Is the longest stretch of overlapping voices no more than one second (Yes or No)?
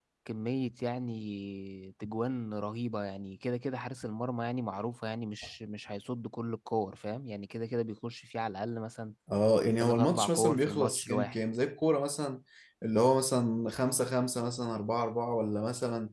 No